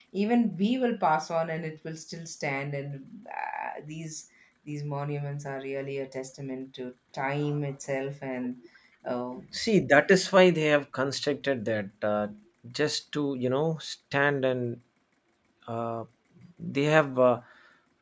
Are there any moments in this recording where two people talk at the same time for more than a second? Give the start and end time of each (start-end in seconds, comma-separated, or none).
none